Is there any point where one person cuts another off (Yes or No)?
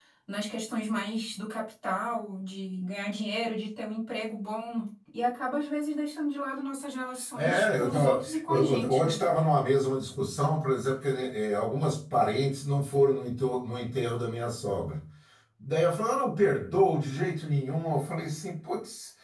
Yes